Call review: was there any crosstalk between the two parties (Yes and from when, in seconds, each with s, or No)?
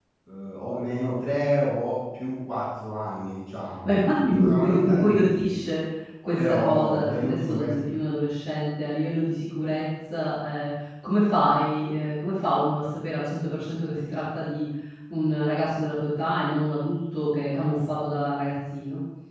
Yes, from 3.8 s